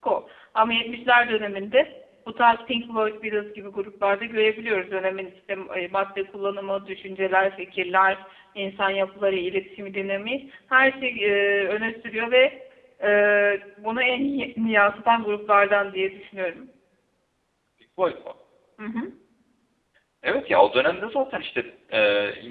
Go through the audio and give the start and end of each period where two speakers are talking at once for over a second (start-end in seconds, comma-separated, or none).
none